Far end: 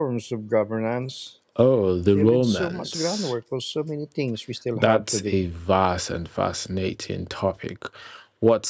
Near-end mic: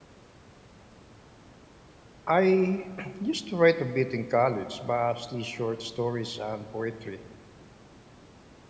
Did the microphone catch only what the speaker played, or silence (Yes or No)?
No